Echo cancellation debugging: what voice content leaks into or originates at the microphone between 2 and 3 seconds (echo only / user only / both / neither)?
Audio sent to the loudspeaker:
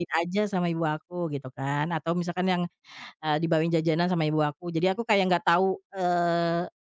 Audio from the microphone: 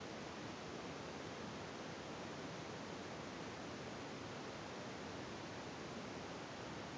neither